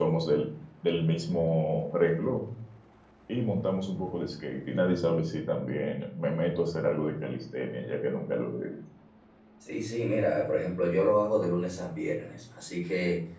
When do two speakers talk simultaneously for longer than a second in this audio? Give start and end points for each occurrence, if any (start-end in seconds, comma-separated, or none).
none